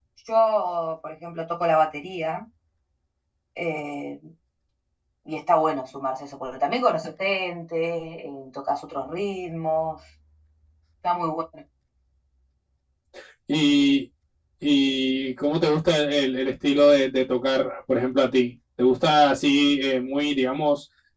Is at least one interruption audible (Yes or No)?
No